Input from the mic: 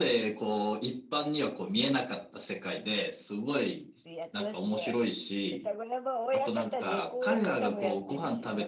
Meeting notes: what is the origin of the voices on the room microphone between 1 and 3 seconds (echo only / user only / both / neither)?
echo only